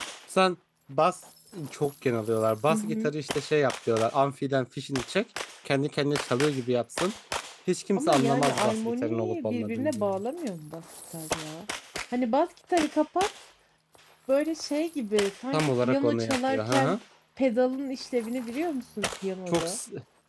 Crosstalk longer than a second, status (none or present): present